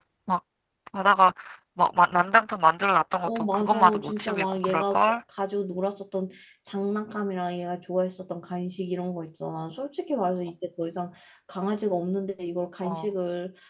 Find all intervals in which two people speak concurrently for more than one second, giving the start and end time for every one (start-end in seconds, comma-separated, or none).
3.2-5.2